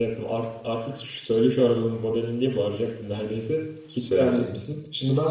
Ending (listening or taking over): taking over